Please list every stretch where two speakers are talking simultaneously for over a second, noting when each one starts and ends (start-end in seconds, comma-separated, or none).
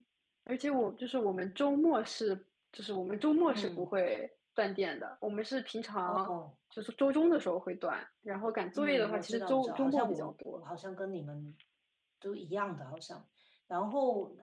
8.8-10.6